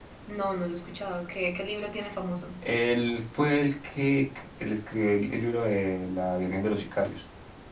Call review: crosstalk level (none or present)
none